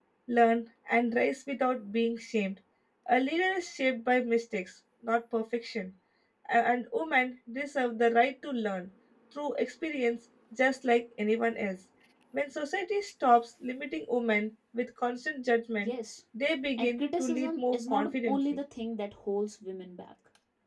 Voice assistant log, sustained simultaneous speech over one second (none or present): present